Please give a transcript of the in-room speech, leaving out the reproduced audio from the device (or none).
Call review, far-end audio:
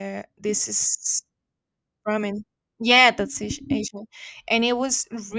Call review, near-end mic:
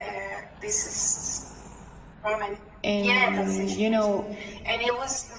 and you know